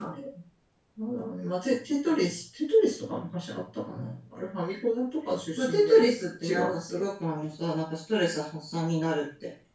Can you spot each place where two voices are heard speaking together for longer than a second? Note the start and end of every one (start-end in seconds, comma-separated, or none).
5.6-7.0